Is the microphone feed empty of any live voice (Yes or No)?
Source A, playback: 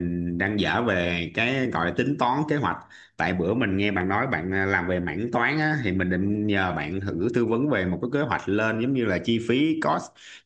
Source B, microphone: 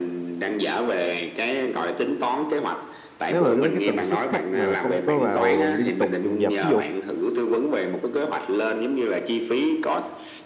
No